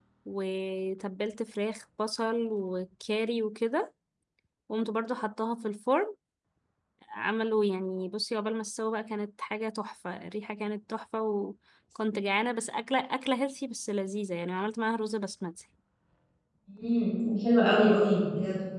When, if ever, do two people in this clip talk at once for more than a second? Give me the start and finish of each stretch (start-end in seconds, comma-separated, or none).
none